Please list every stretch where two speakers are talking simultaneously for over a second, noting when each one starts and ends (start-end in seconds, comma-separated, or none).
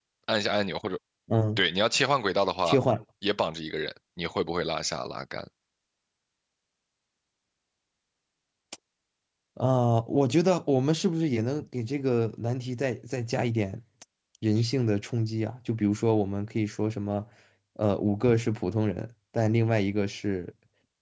none